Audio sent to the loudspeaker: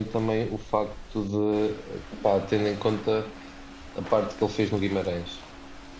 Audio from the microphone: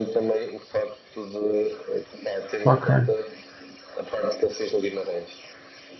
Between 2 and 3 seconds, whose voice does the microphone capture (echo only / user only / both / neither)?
both